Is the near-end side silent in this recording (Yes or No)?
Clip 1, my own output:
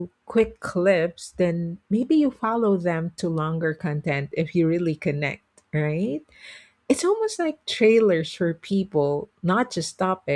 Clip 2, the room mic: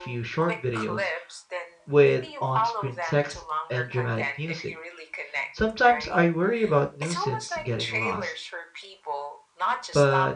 No